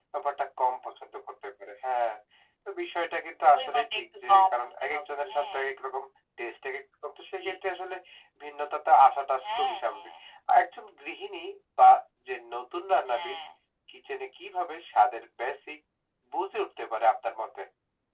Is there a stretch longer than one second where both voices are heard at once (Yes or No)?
Yes